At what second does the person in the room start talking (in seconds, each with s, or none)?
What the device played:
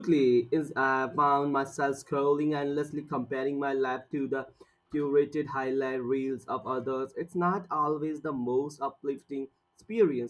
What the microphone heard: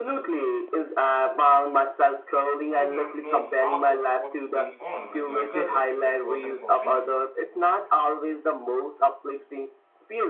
2.7 s